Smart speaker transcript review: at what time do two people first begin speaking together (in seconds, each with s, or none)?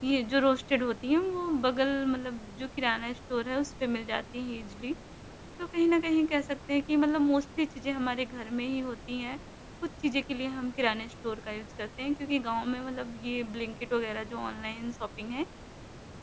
none